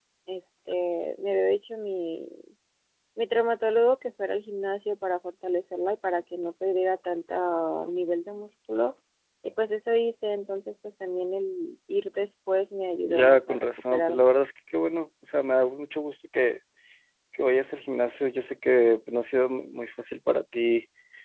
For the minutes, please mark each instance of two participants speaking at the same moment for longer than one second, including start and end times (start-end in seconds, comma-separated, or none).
13.0-14.3